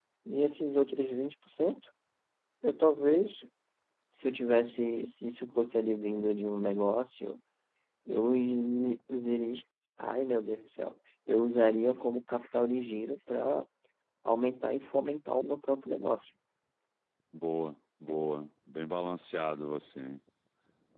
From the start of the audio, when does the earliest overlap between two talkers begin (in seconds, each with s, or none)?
none